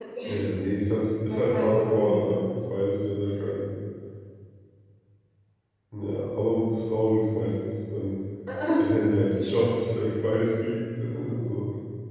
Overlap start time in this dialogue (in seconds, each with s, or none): 1.3 s